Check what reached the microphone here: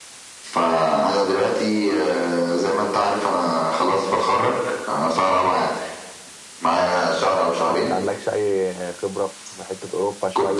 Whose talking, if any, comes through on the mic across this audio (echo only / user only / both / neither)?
both